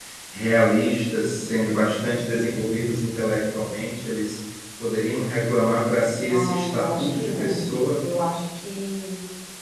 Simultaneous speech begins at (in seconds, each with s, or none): 6.3 s